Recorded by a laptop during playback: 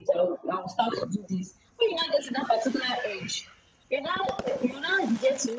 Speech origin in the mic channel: echo only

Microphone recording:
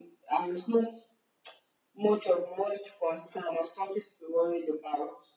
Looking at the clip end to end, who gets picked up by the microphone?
echo only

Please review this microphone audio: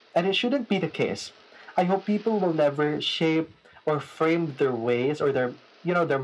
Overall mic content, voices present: echo only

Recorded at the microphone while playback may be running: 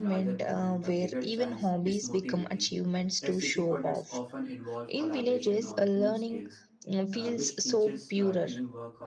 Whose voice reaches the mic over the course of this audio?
both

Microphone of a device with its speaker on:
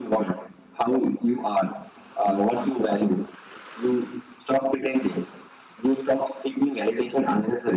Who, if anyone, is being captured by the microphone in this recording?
echo only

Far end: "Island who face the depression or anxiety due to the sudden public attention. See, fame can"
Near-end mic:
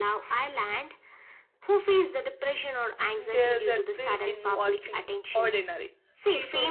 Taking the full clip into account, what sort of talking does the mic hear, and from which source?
both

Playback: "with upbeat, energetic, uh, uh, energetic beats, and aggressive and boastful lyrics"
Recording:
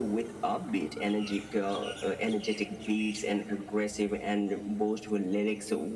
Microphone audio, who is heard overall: echo only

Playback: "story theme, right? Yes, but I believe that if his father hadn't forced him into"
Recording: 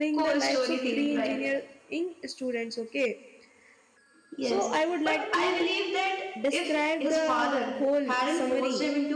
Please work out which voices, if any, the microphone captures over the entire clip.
both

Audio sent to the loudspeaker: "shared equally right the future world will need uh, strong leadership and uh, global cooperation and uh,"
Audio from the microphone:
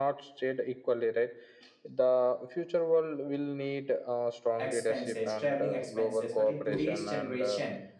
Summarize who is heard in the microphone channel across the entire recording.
both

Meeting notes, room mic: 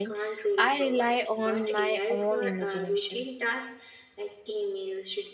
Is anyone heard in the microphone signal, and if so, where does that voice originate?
both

